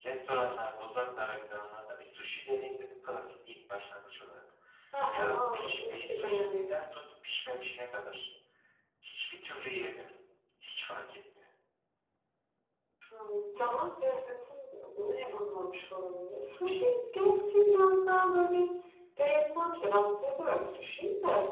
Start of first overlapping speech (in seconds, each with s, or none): 5.3 s